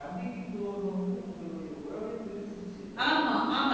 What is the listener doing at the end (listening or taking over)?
taking over